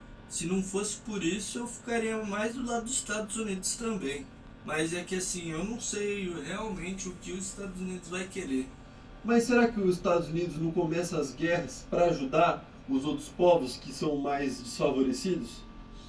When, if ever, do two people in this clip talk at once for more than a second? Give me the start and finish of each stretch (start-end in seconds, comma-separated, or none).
none